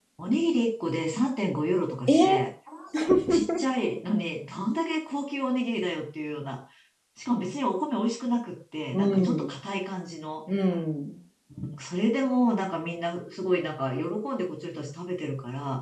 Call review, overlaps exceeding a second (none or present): none